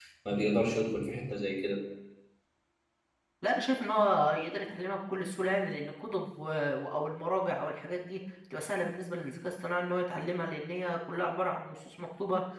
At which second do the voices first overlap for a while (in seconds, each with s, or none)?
none